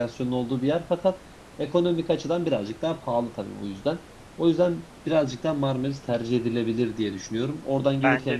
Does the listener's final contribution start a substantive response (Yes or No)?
No